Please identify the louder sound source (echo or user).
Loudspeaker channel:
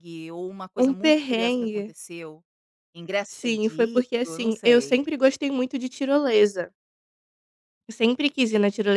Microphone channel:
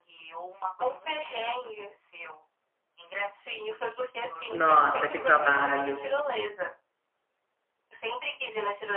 user